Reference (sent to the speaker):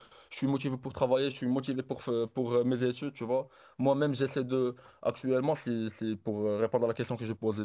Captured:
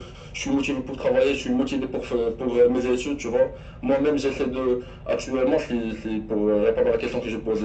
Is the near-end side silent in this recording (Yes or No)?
Yes